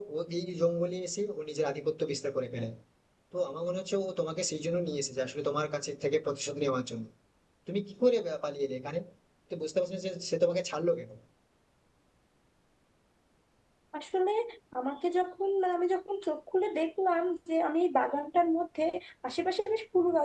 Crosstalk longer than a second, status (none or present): none